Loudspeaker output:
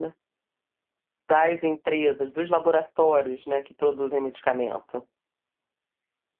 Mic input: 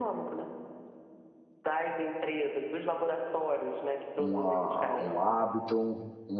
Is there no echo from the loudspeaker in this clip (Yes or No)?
No